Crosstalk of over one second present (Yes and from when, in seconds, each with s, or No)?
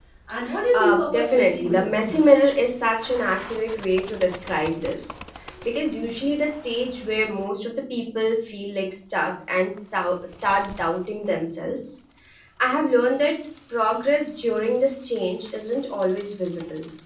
Yes, from 0.7 s